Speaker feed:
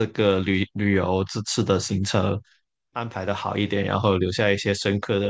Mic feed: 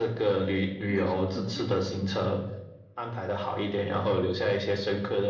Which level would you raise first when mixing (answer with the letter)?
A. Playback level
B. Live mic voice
B